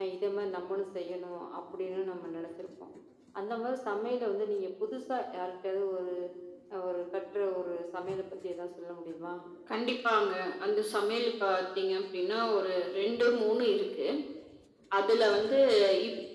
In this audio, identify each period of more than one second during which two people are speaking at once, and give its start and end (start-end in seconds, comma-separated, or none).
none